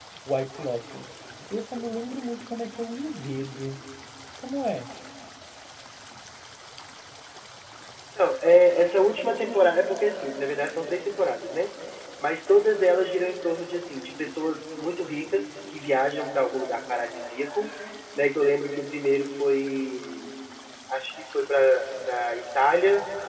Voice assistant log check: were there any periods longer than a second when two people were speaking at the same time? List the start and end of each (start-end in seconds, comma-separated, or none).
none